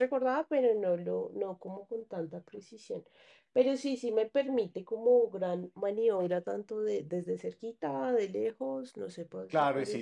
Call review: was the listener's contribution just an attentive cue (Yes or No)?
No